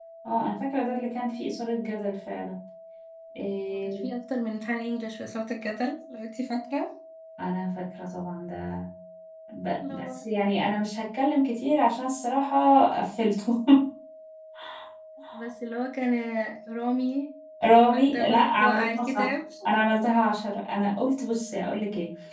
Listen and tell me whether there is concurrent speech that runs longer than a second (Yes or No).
Yes